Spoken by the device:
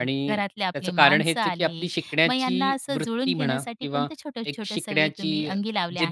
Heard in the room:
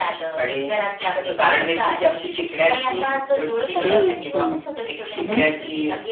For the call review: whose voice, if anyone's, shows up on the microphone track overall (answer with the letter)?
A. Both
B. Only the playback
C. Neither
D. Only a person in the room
A